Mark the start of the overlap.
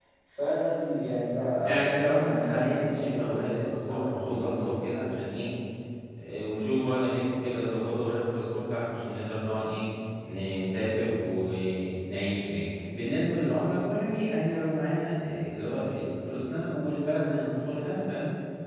2 s

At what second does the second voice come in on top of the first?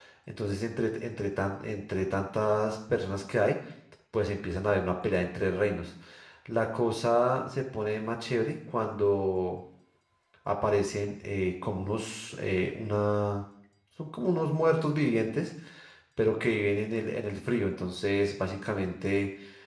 none

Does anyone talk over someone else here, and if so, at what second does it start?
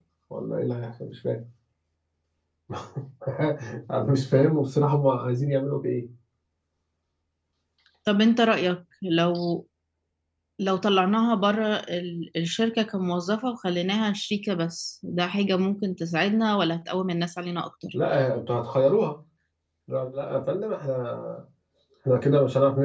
none

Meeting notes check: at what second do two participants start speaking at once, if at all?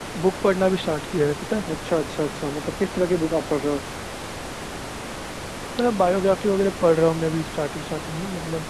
none

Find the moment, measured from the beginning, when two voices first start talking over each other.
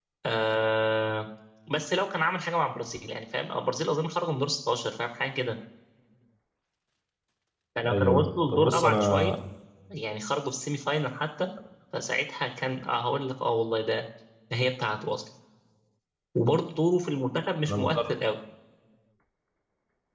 8 s

